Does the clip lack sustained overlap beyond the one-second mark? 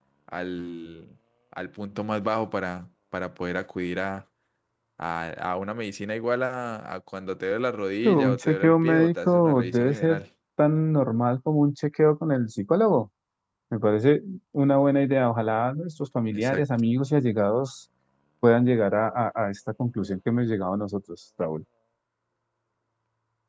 No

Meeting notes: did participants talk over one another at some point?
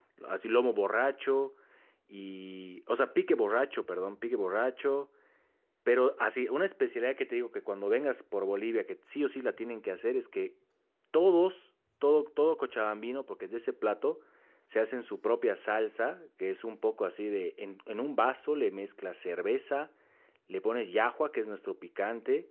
No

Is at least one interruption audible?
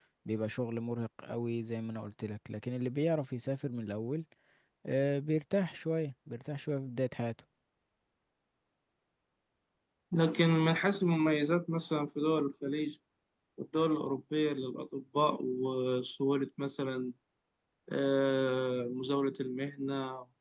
No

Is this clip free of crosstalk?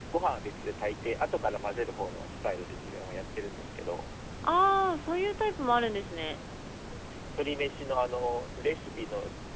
Yes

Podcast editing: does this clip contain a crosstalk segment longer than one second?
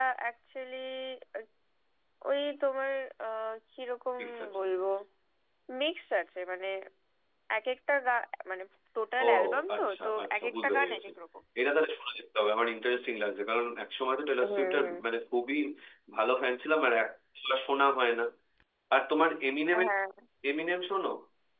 Yes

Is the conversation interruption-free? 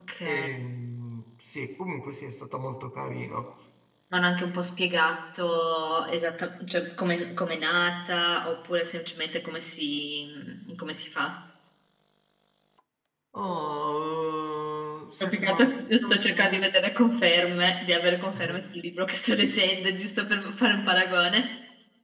No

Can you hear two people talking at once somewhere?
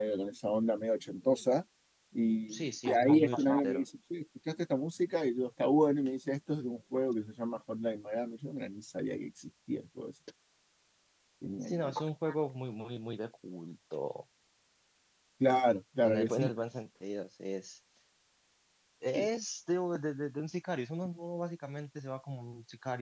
Yes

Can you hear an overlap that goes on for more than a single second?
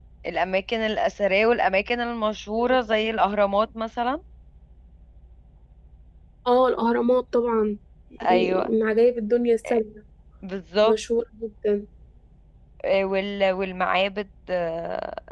No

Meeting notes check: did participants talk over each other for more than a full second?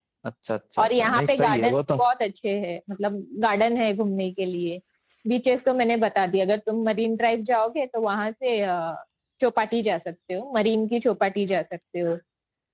Yes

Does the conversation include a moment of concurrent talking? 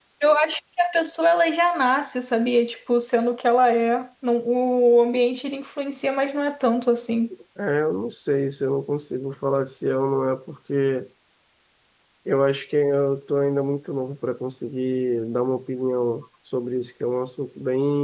No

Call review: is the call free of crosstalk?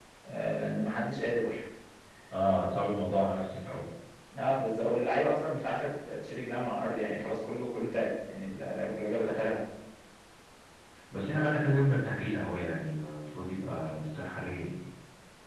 Yes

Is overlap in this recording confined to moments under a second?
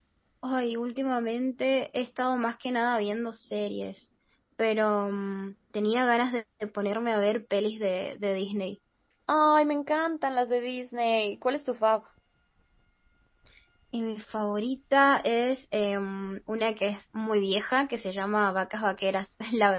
Yes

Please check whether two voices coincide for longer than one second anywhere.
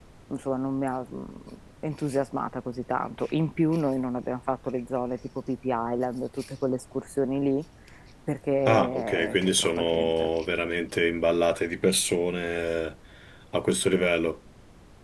Yes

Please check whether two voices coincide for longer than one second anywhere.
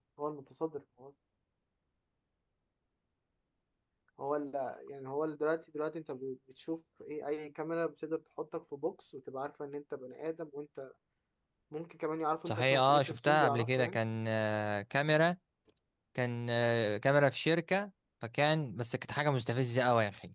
Yes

